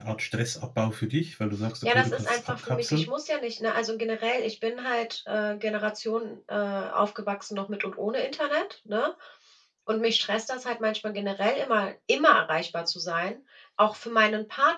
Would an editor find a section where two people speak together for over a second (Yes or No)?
Yes